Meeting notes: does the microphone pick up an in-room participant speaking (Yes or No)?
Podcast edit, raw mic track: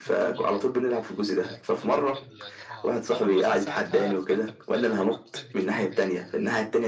Yes